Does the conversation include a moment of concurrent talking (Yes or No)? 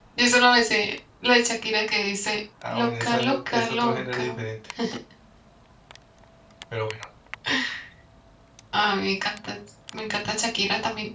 Yes